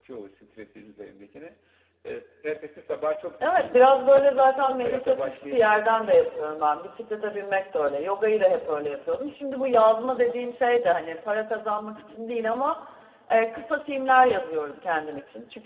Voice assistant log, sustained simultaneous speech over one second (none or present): present